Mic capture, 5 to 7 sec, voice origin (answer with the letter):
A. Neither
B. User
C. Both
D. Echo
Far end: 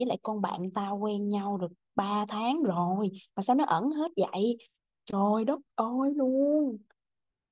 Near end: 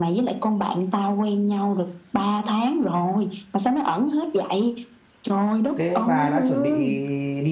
C